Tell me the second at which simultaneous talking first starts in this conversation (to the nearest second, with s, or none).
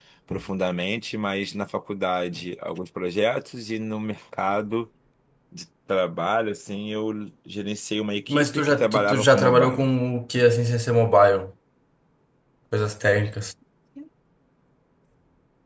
8 s